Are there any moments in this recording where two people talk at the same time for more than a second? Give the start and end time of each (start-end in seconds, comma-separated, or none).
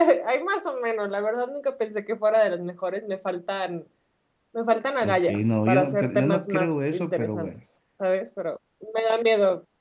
5.0-7.5